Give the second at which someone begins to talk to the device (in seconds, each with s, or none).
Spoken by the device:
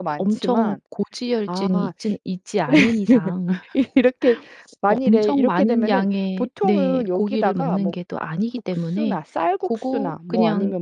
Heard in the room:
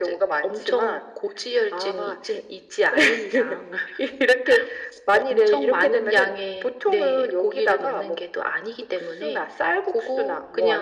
none